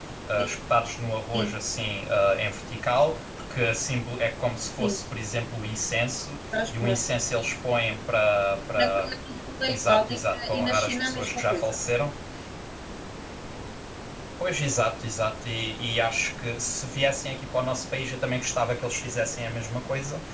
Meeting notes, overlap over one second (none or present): present